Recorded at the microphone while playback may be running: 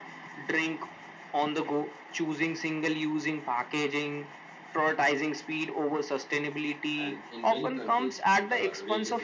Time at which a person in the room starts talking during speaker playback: 6.9 s

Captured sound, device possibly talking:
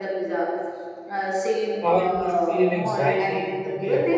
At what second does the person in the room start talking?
1.8 s

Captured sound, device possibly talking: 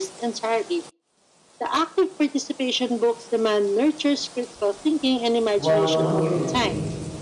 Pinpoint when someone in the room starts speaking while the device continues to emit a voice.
5.6 s

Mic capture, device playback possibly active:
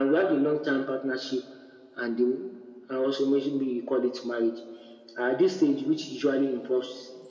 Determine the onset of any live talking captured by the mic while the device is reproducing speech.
none

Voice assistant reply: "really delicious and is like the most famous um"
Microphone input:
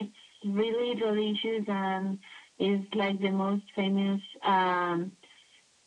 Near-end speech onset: none

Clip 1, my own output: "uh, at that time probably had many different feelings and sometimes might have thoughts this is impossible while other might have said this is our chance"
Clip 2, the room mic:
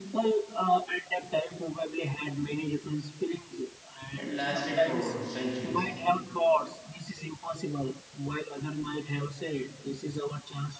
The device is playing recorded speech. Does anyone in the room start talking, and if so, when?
4.2 s

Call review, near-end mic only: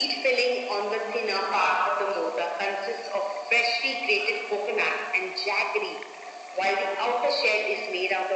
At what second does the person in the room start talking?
none

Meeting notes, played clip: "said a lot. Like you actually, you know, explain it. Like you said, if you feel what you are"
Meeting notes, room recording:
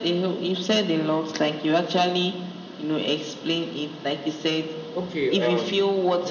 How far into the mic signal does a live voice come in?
4.9 s

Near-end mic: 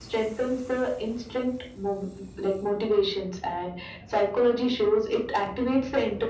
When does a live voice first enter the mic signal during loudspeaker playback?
none

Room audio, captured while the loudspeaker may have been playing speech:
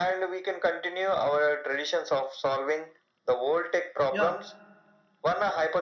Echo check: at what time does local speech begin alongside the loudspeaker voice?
4.1 s

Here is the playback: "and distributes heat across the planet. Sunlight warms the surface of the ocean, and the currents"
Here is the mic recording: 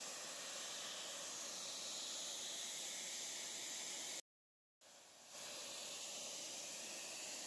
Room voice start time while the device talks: none

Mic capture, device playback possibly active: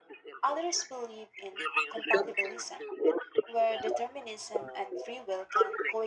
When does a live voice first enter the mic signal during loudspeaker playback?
0.4 s

